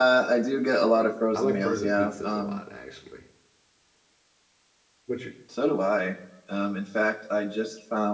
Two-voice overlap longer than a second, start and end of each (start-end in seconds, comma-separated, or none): 1.3-2.6